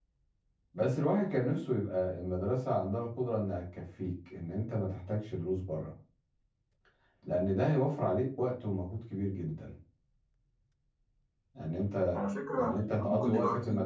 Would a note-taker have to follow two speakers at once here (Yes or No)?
Yes